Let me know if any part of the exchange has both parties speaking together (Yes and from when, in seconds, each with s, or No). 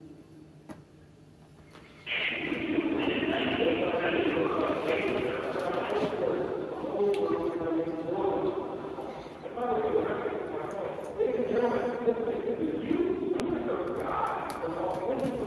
Yes, from 3.5 s